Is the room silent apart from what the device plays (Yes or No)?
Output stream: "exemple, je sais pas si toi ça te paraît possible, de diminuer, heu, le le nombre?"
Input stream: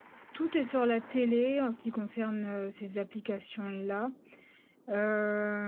No